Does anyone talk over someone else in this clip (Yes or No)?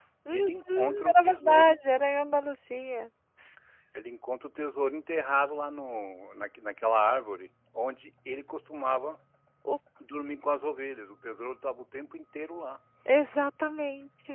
Yes